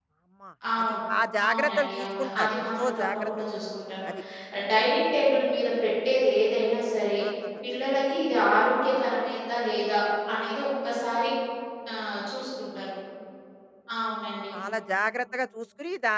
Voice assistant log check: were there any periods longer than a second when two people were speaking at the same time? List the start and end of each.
1.5-3.3

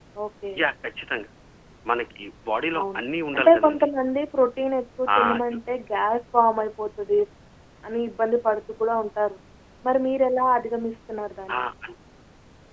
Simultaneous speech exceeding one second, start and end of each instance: none

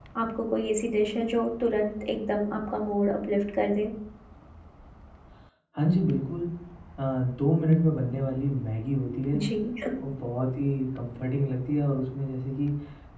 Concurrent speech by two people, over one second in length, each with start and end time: none

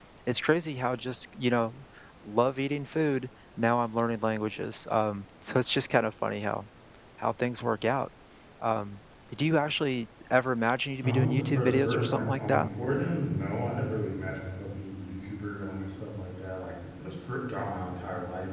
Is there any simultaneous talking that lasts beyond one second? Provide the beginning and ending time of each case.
11.0-12.7

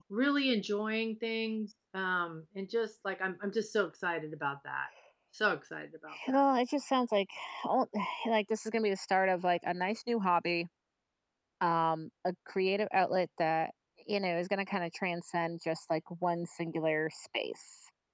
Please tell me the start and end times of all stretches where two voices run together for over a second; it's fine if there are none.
none

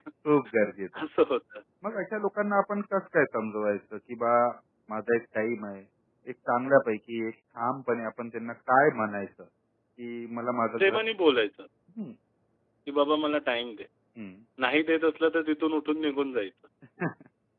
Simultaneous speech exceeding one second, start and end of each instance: none

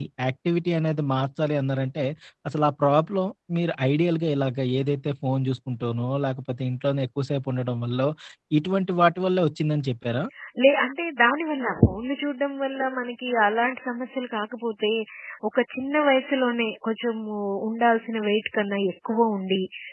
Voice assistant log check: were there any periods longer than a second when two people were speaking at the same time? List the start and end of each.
none

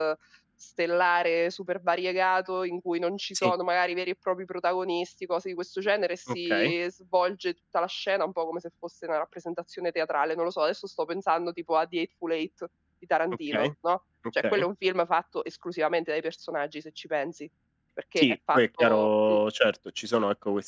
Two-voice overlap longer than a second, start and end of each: 18.2-19.4

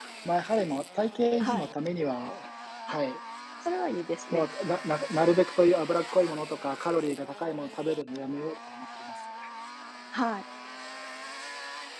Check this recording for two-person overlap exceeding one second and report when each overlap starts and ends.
none

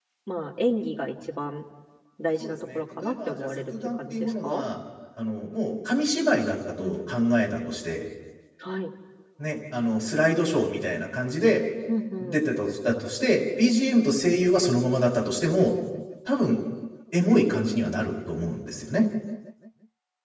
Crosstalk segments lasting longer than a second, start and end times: 2.4-4.6

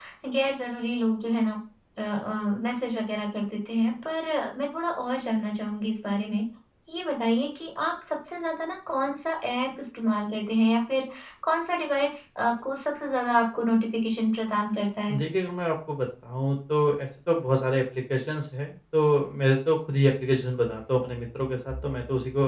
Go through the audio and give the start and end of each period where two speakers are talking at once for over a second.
none

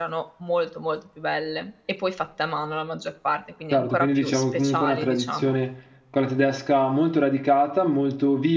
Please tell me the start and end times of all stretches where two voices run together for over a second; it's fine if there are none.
3.7-5.6

